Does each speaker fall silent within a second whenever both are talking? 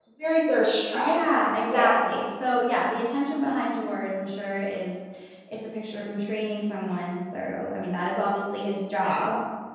Yes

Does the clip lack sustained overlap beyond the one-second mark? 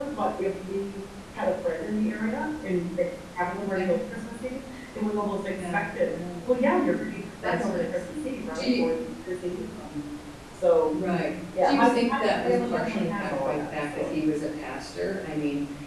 No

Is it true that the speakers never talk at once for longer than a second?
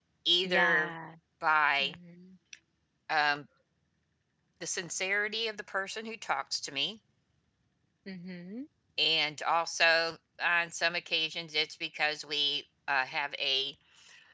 Yes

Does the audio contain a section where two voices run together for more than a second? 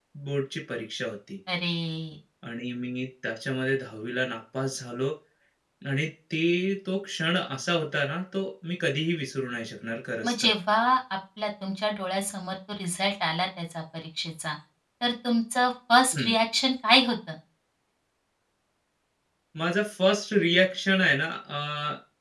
No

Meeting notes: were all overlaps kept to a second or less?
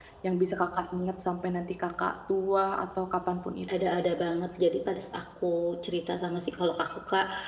Yes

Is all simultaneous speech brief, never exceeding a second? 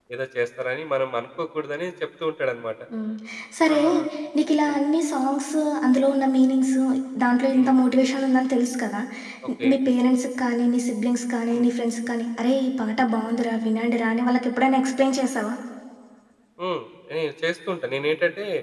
Yes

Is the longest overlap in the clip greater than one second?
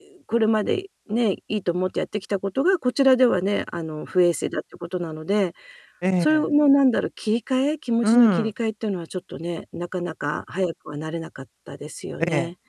No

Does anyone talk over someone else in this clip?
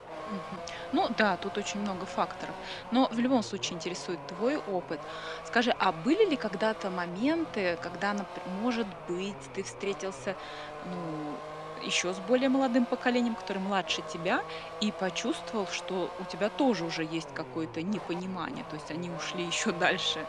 No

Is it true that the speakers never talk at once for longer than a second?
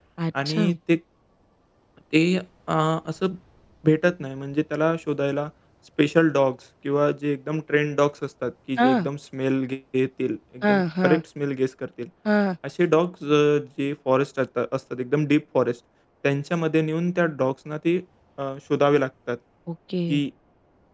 Yes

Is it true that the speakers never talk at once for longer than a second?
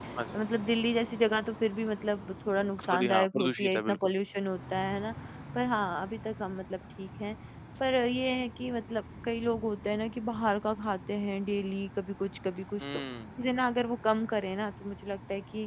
No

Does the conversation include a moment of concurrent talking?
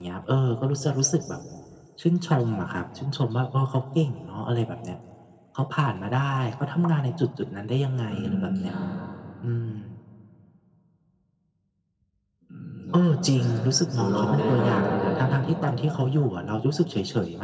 Yes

